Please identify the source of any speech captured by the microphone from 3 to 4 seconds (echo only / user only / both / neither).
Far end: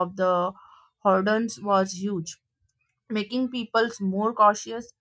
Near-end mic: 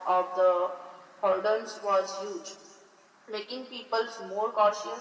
echo only